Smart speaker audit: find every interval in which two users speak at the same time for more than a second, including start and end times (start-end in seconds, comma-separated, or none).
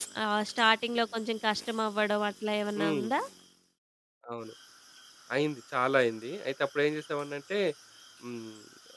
none